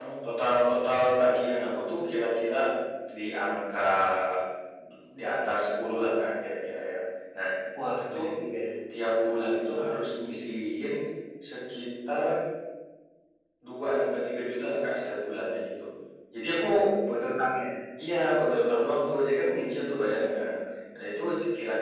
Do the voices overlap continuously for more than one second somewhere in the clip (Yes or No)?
No